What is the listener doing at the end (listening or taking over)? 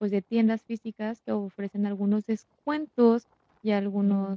listening